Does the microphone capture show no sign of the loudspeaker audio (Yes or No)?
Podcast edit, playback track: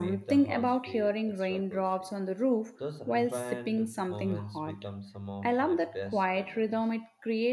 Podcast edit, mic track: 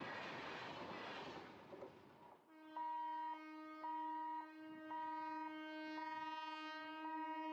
Yes